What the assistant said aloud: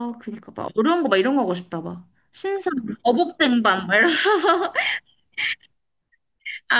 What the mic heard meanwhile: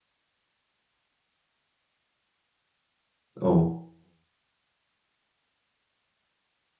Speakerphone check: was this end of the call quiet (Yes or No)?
No